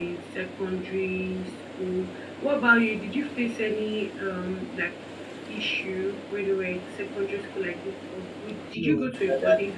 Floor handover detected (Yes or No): Yes